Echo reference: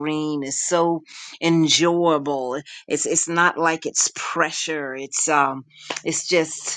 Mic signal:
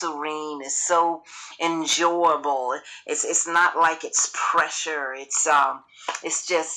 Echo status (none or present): present